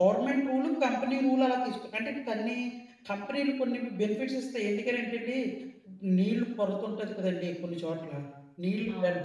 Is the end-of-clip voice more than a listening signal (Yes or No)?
No